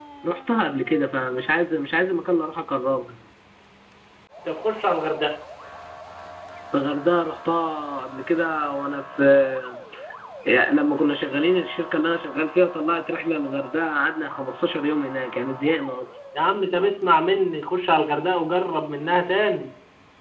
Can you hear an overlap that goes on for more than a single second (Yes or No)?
No